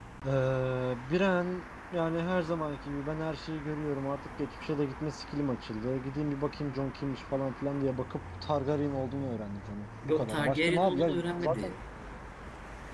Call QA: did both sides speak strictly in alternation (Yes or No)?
No